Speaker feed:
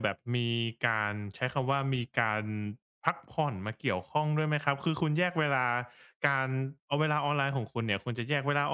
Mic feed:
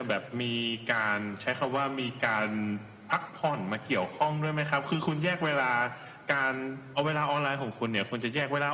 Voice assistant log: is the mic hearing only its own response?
Yes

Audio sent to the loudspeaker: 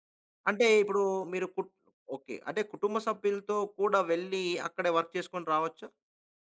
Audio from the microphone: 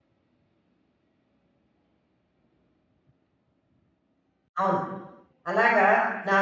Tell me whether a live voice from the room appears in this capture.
Yes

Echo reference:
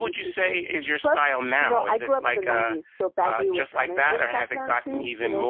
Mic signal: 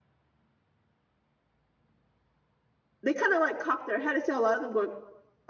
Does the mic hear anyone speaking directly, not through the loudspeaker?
Yes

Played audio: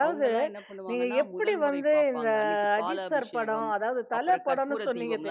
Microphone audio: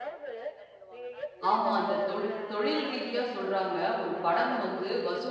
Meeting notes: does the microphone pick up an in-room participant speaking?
Yes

